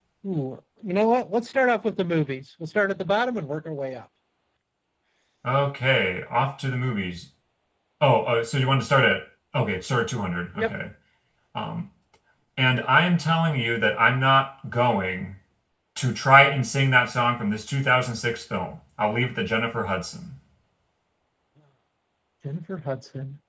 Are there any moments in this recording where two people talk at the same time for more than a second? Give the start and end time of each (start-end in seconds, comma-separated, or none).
none